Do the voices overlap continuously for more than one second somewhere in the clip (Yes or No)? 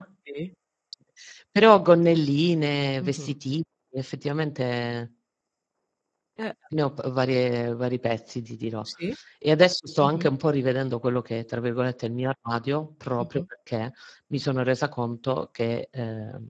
No